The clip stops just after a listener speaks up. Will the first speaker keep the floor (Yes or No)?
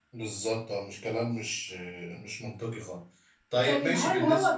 No